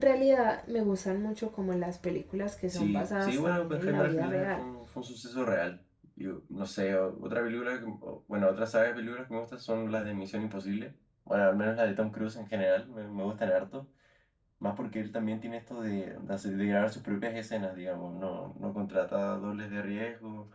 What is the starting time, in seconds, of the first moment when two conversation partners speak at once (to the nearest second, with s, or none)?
3 s